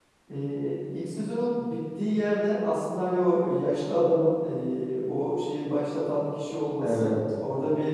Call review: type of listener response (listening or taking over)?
listening